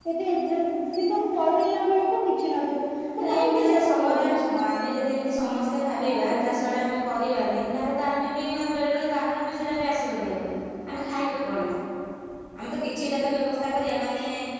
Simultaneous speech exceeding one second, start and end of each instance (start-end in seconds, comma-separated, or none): 3.2-4.4